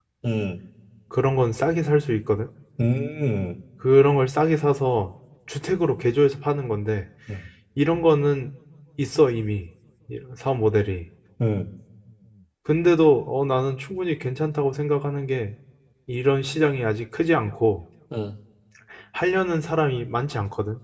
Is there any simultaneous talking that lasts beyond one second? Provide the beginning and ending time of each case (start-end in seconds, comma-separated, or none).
none